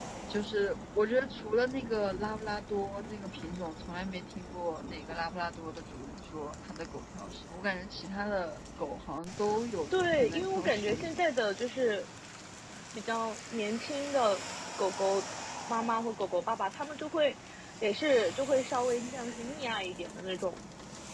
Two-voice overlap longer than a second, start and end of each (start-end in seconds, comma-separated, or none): 9.9-11.2